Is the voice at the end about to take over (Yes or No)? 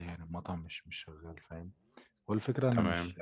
No